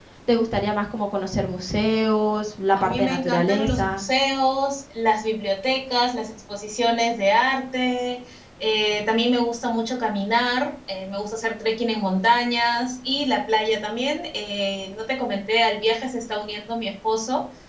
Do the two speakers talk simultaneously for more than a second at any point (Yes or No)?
Yes